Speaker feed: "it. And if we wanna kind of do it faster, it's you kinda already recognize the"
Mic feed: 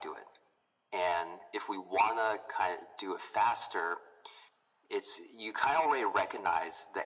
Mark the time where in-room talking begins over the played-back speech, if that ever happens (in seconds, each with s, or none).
none